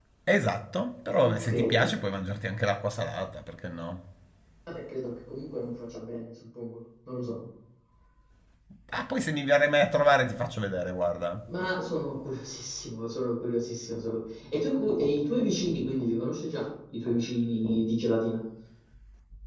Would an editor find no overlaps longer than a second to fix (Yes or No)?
Yes